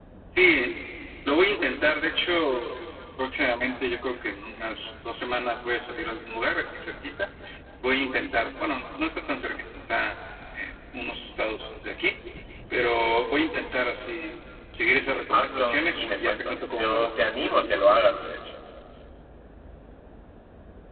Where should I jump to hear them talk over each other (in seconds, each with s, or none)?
15.3 s